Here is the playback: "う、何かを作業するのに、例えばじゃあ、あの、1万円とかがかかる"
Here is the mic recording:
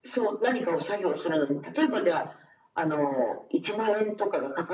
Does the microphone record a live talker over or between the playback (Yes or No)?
No